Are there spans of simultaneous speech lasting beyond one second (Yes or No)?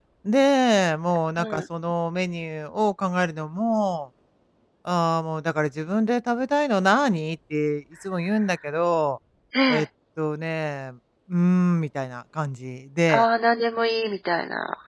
No